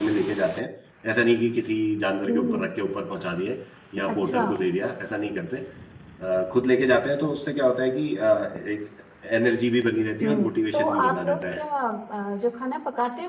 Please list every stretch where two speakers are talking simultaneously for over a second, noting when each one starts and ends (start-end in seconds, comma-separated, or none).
10.2-11.6